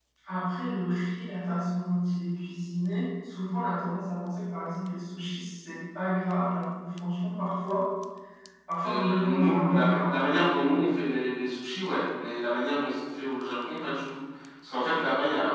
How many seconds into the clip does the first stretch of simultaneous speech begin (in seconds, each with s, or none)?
8.8 s